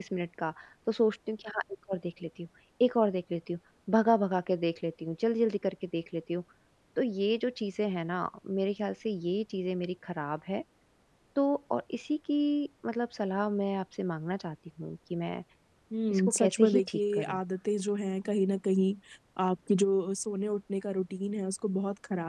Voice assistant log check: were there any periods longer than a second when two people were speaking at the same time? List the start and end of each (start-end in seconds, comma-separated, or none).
16.1-17.4